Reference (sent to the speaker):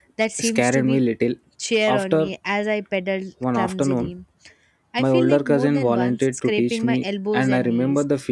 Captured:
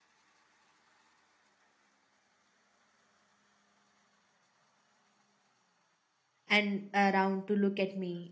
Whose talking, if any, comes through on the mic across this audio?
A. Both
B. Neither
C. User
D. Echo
C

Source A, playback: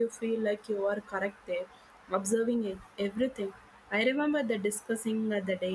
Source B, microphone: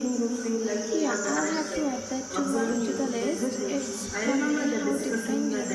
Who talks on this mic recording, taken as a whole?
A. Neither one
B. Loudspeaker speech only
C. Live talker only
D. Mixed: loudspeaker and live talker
D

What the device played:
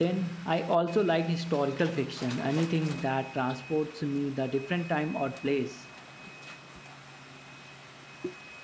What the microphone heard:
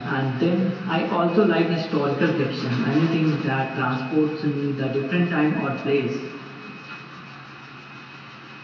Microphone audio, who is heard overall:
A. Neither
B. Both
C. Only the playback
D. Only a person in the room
C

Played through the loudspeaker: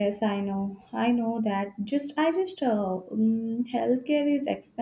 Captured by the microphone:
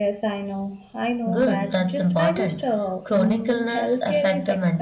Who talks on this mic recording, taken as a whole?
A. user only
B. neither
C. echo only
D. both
D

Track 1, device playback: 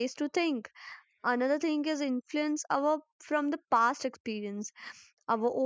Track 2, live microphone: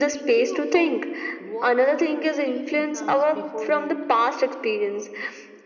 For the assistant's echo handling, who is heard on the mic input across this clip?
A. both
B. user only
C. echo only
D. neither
A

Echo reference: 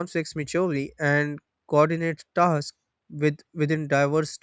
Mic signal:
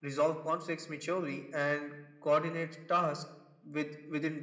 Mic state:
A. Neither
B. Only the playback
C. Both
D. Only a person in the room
B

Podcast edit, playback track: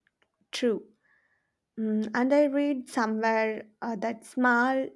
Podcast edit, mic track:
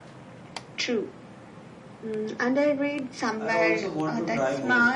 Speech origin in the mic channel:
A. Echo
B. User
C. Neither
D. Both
D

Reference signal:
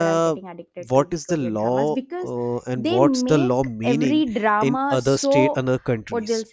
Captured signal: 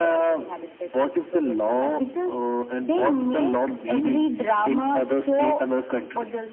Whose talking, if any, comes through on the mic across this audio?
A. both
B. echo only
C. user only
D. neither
B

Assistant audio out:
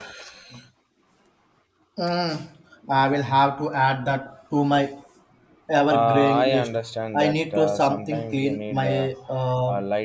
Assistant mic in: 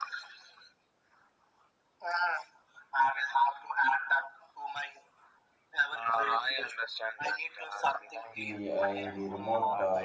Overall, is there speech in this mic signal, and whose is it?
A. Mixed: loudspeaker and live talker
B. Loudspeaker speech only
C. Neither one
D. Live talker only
A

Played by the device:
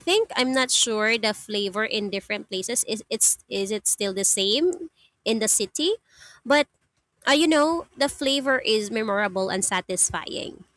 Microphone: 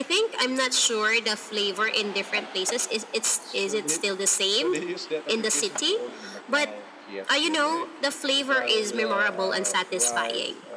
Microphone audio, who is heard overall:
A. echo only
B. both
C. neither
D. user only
B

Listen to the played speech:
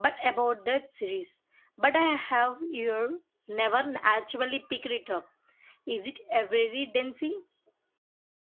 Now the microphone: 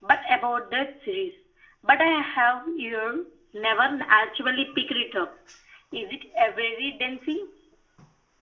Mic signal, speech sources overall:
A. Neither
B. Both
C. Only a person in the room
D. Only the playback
D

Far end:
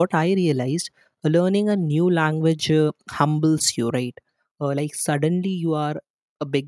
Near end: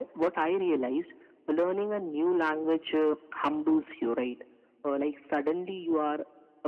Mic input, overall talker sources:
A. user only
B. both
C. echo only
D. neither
C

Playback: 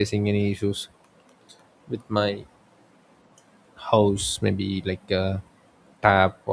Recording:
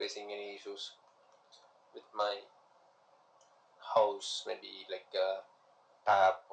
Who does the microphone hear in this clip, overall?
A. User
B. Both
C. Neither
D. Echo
D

